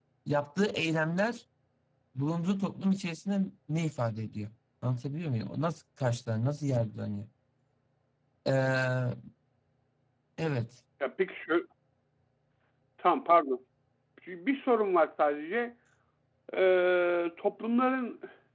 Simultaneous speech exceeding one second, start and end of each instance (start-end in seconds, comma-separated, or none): none